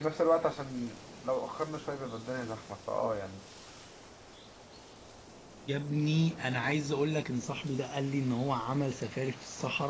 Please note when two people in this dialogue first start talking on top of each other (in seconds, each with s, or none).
none